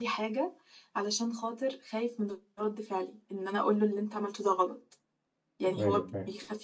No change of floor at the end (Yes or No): Yes